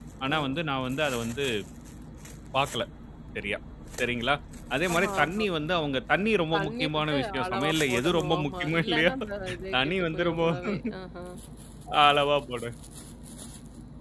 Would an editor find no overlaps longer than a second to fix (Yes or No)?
No